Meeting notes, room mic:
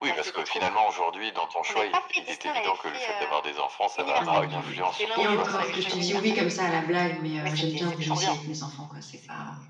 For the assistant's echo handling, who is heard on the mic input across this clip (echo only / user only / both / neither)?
both